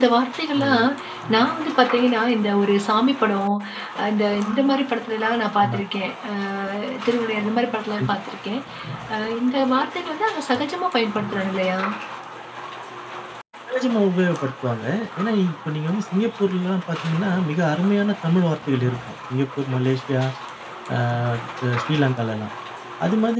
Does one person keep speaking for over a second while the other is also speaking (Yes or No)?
No